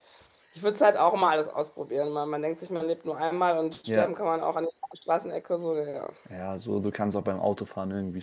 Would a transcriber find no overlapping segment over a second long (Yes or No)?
Yes